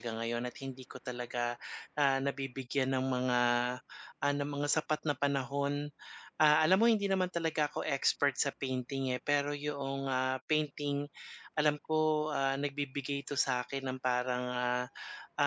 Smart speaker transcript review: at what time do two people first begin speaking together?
none

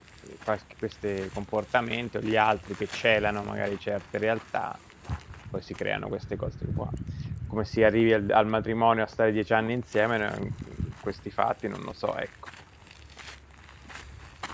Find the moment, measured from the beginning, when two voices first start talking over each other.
none

